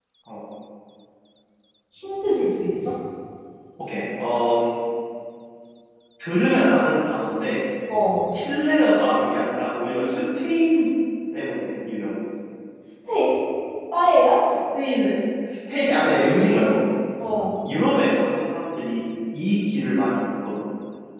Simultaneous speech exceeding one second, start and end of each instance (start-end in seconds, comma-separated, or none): none